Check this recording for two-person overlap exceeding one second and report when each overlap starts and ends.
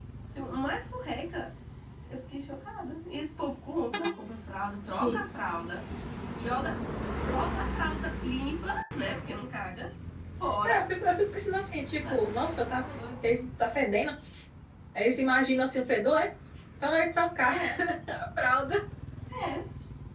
none

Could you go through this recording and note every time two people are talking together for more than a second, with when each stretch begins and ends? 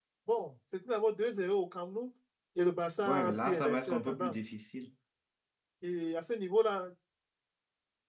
3.0-4.5

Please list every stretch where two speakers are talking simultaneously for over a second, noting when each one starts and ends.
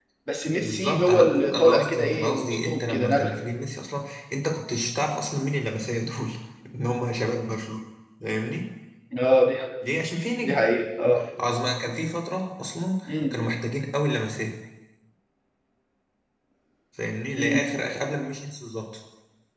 0.6-3.4

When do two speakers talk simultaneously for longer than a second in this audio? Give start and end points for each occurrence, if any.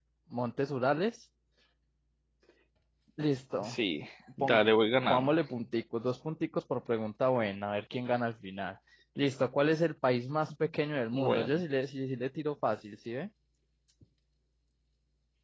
none

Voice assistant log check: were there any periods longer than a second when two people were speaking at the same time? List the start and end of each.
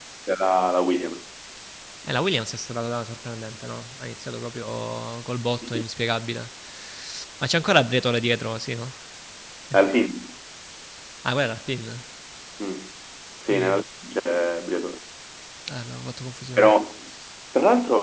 none

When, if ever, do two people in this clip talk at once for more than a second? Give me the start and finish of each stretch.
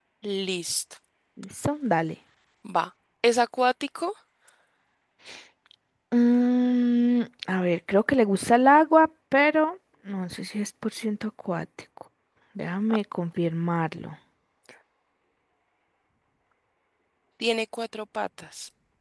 none

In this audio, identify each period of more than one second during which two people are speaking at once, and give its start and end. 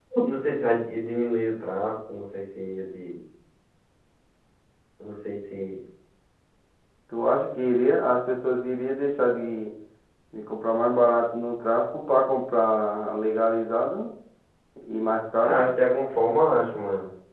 none

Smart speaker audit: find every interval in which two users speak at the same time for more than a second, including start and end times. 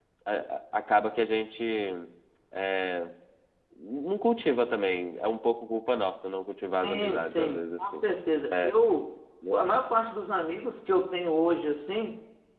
6.8-8.0

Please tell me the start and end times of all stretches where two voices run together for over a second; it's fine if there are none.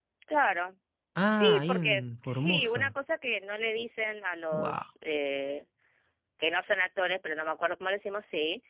1.3-2.9

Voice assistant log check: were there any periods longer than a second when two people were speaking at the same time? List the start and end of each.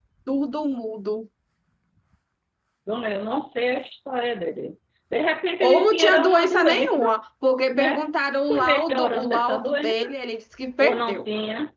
5.6-7.0, 8.4-9.9

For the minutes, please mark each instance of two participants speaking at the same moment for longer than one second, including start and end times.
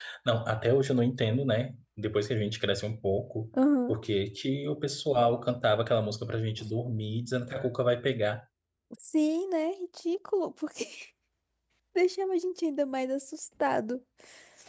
none

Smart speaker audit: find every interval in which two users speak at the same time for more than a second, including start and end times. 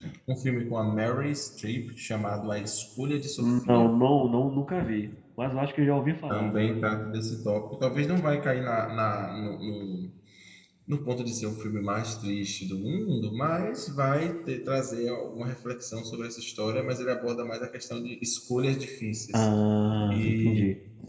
none

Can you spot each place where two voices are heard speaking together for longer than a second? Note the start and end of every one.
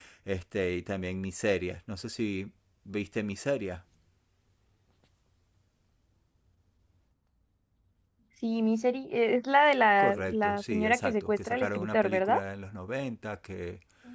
10.0-12.4

